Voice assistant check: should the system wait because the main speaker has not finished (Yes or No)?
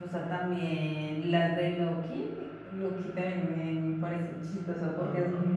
Yes